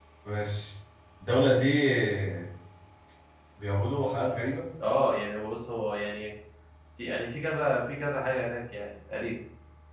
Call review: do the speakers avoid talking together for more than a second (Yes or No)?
Yes